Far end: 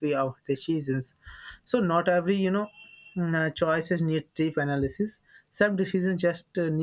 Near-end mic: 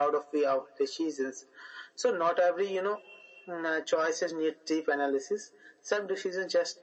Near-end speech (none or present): none